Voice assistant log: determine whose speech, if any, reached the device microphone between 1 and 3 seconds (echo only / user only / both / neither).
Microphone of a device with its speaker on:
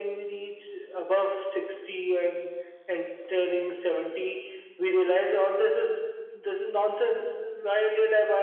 echo only